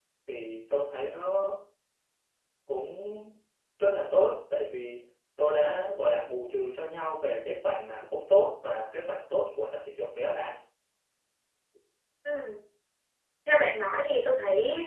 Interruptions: none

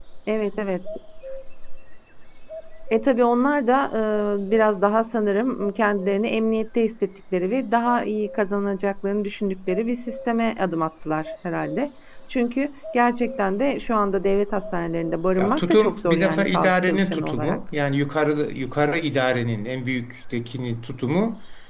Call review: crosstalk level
present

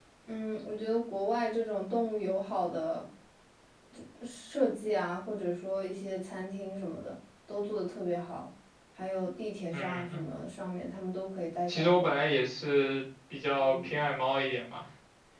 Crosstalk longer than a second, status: none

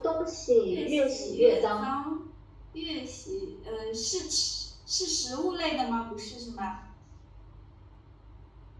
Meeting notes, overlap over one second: present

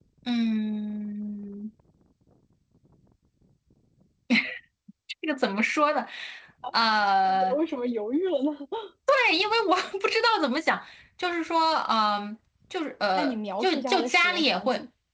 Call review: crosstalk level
present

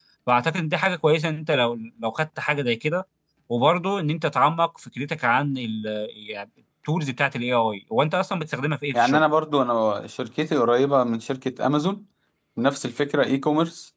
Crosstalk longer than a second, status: none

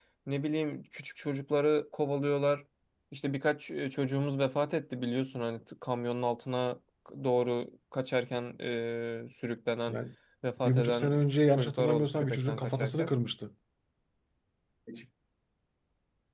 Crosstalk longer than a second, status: present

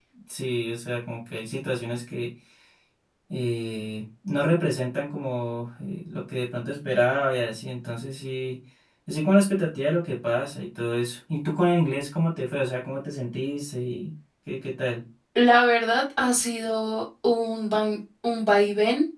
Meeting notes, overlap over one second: none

